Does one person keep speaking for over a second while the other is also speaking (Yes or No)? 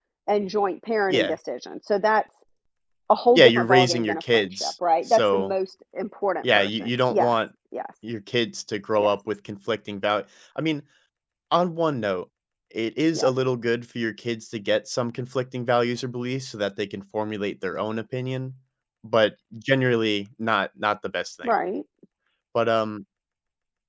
Yes